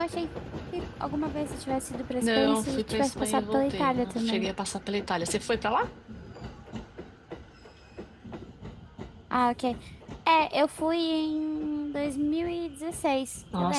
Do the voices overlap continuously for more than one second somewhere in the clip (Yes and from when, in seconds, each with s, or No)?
Yes, from 2.2 s